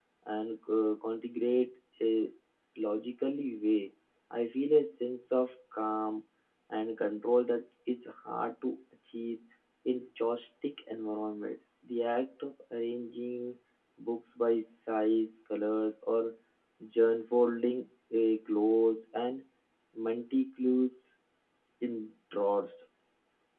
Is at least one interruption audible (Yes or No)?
No